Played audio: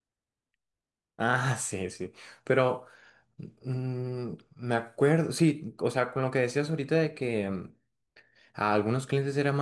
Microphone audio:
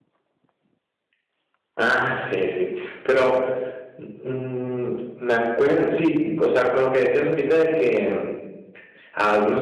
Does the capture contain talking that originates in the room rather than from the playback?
No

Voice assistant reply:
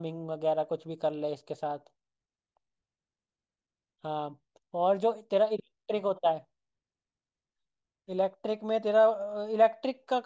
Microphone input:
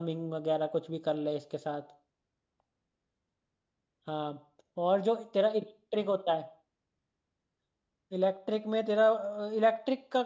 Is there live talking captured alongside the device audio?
No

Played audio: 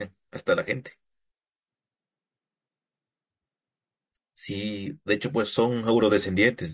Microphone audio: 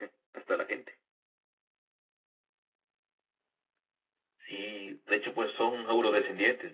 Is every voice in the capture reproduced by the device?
Yes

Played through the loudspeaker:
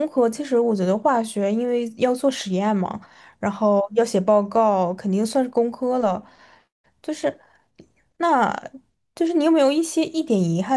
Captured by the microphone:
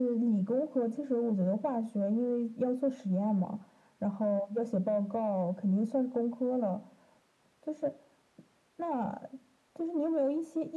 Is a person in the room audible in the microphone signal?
No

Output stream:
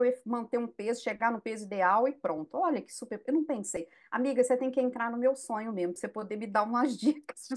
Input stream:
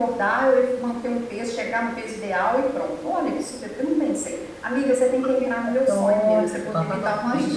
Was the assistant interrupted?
Yes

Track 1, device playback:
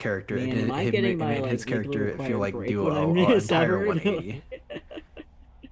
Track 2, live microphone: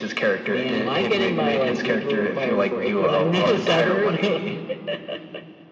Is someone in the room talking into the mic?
No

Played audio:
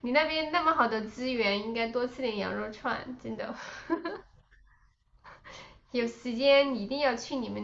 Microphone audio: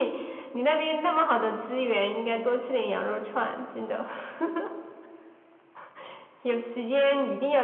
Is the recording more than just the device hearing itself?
No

